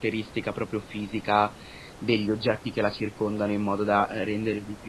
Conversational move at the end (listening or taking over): listening